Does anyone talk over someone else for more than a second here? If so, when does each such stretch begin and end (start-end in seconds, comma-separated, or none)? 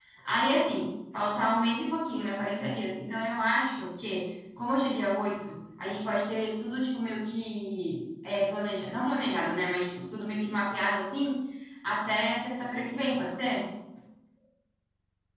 none